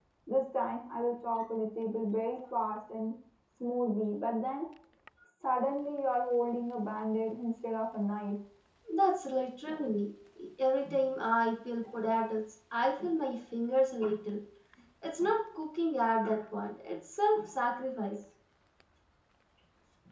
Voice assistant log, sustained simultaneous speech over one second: none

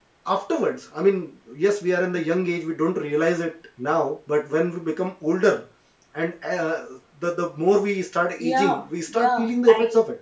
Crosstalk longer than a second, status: present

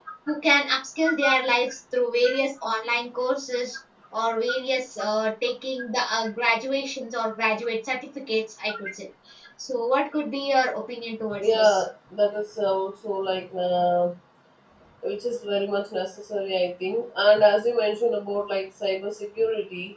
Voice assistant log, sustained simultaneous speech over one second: none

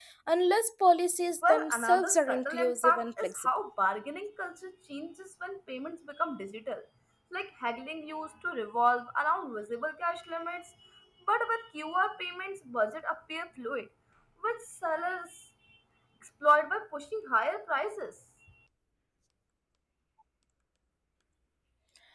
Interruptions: present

